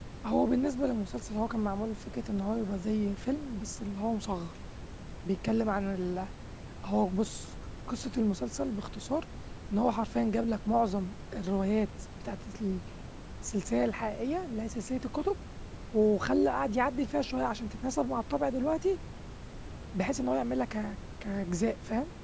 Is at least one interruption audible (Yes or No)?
No